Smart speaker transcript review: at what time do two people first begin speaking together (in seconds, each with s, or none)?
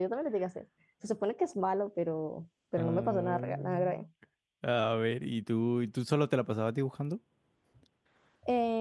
2.8 s